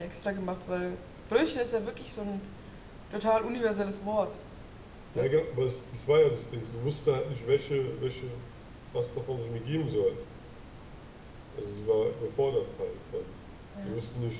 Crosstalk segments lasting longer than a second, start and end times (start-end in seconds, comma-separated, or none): none